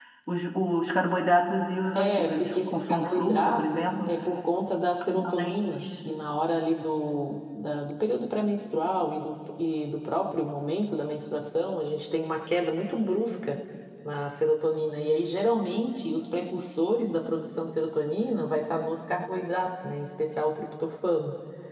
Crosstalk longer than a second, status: present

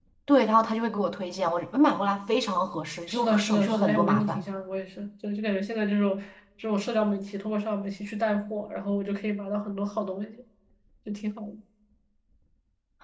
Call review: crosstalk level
present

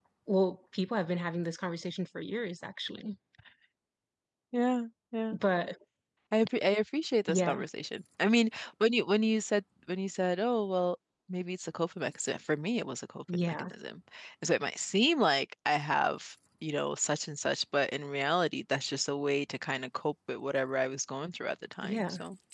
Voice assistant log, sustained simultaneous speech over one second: none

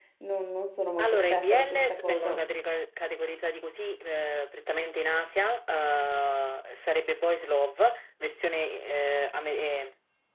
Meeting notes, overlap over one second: present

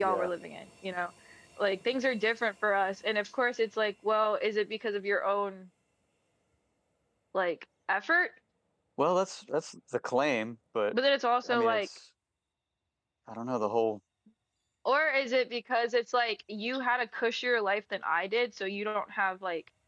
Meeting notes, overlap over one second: none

